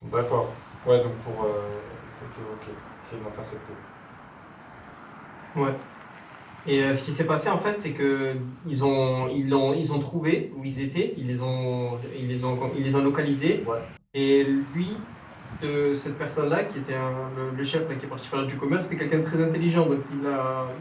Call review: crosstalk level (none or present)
none